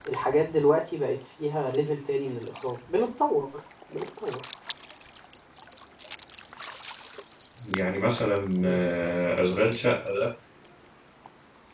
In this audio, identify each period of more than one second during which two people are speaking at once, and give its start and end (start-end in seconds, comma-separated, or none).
none